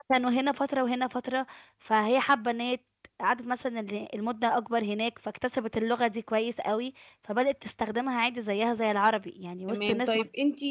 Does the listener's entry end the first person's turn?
Yes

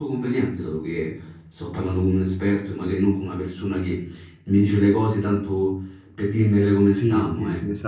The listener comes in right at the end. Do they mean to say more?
Yes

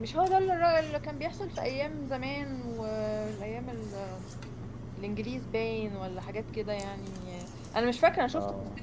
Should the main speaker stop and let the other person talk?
No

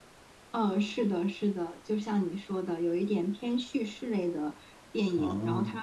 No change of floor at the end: Yes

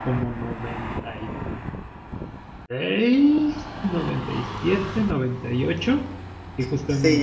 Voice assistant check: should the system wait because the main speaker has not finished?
No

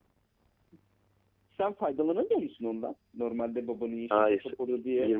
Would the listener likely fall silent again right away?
No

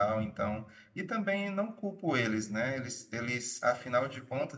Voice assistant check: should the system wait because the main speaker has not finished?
Yes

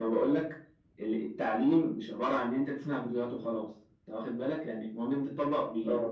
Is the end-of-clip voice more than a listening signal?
No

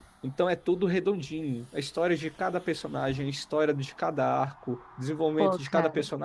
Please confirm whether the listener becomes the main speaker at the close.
No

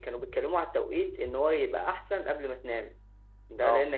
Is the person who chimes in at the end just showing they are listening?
Yes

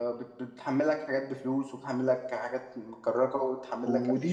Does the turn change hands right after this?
Yes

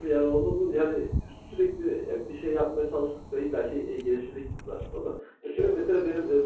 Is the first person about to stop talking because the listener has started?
No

